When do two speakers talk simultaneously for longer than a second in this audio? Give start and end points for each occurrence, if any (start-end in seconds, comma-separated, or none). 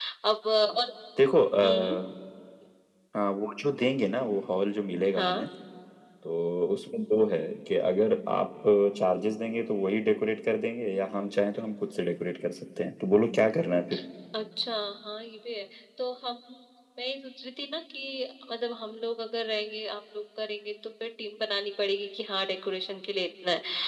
none